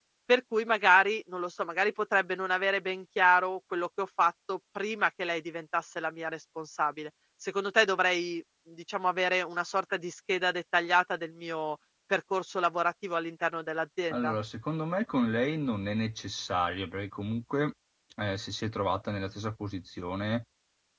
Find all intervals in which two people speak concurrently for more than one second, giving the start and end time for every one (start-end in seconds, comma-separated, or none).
none